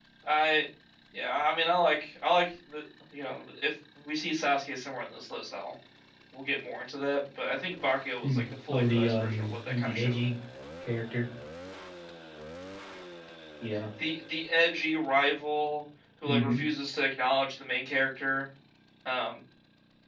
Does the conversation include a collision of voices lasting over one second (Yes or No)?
Yes